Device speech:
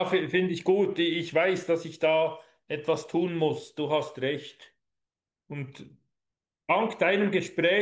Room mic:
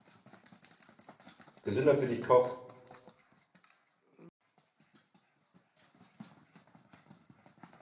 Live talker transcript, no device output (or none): gesünder für dich kocht.